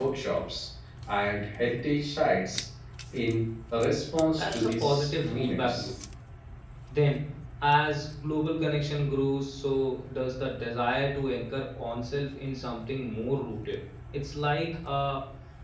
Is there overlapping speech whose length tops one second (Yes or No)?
Yes